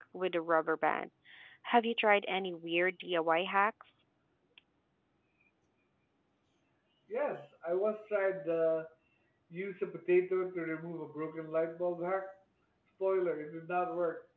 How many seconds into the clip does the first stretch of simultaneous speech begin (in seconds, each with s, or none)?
none